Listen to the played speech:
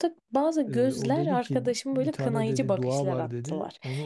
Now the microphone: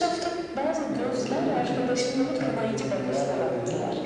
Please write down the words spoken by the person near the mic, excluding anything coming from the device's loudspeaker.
none

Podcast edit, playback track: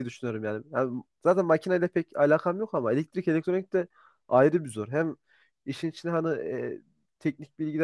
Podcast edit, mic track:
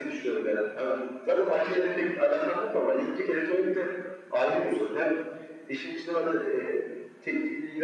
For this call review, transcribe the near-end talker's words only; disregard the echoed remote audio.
none

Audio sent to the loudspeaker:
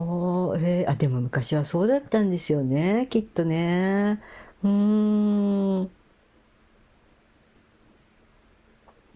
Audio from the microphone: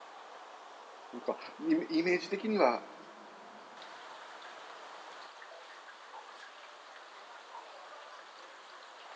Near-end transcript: なんか、イメイメージ的には

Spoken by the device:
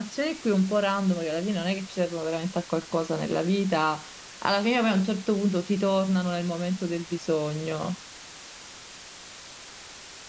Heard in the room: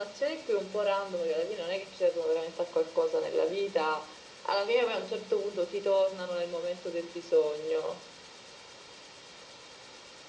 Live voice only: none

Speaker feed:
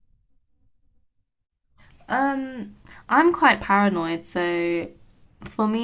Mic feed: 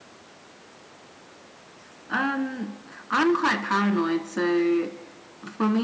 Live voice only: none

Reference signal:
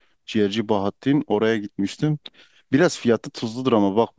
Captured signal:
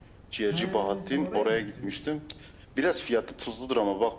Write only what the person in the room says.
He sen oraya mı gidiyordun?

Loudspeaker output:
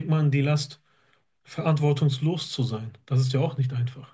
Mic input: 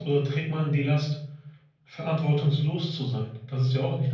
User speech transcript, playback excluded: none

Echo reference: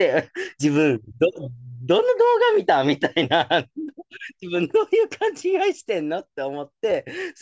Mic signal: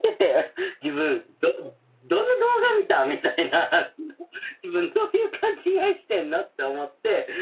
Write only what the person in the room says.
none

